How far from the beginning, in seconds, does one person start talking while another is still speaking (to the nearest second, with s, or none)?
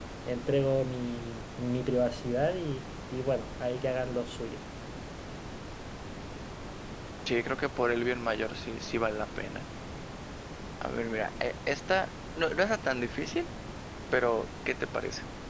none